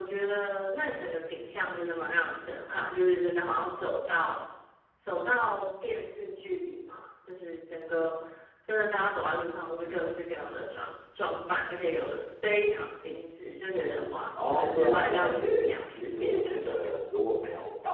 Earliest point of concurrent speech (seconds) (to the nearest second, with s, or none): 14 s